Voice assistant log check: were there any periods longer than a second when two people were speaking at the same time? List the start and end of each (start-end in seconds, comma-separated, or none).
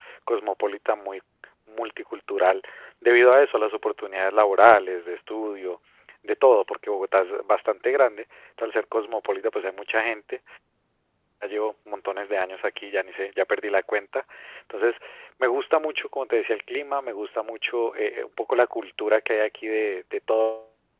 none